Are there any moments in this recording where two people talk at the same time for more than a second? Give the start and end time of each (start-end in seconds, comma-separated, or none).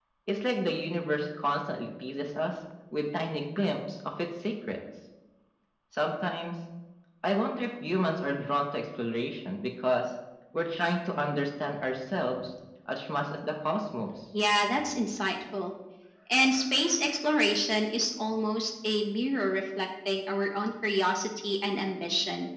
none